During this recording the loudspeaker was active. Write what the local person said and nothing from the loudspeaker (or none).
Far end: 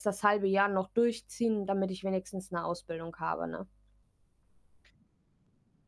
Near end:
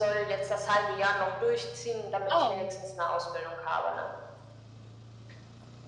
Oh.